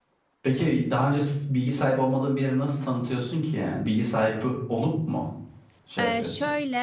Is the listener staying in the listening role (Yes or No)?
No